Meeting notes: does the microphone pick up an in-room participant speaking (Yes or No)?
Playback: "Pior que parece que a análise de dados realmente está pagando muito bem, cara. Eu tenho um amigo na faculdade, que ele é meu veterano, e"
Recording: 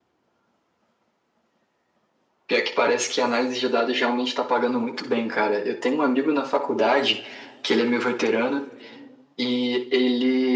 No